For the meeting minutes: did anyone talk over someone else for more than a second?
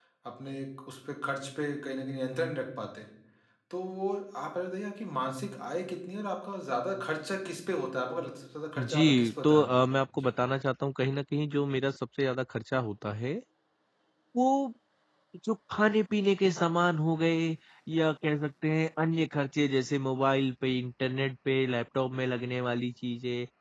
Yes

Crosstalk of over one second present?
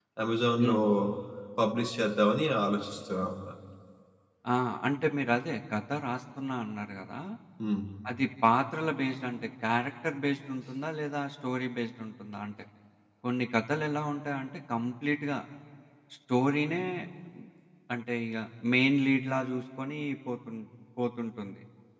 No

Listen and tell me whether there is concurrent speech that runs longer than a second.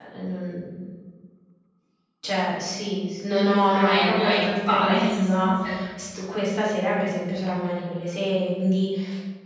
Yes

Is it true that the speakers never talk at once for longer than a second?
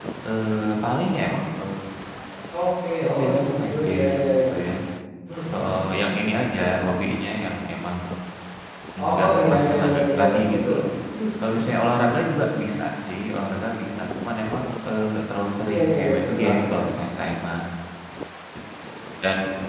No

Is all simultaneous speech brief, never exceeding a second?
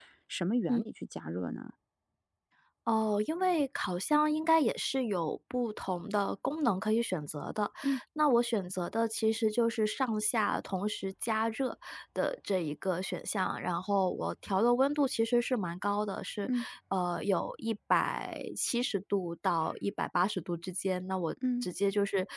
Yes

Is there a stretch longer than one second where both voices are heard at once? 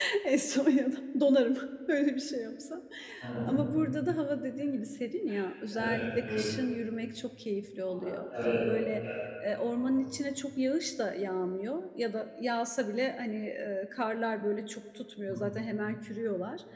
No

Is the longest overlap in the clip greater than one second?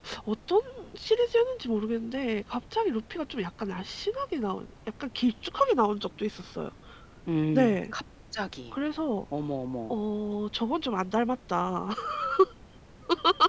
No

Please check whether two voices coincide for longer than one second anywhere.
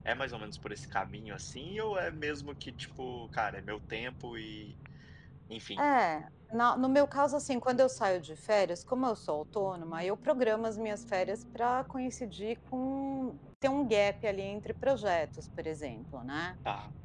No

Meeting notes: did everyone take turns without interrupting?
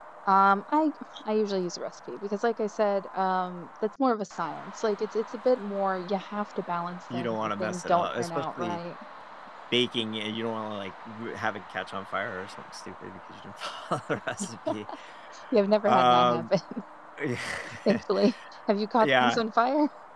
No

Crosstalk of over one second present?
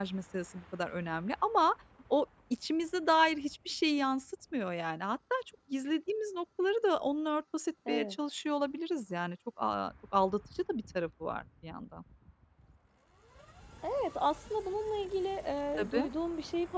No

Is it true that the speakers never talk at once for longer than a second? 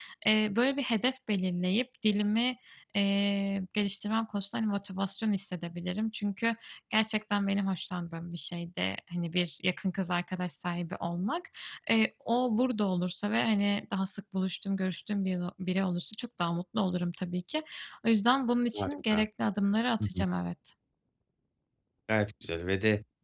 Yes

